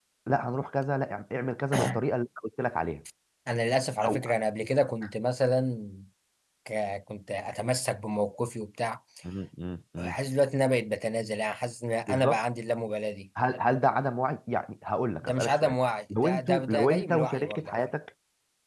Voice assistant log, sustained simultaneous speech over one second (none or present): present